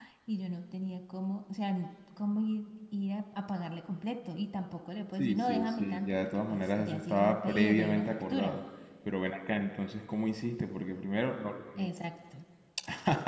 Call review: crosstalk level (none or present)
present